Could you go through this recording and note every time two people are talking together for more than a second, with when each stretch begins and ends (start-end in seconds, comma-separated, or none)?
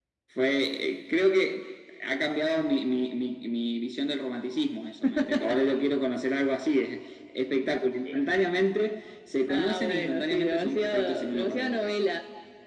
9.5-12.0